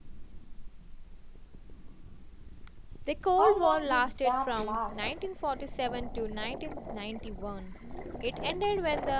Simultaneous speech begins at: 3.4 s

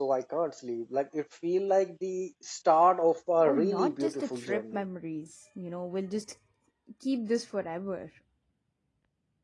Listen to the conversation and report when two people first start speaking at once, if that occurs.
3.4 s

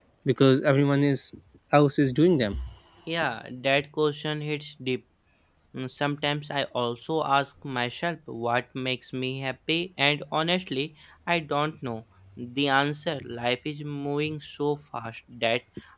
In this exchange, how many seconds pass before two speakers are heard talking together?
none

